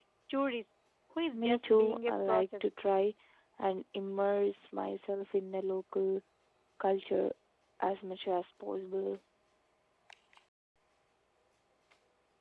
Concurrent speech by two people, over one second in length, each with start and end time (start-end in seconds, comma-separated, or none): 1.3-2.7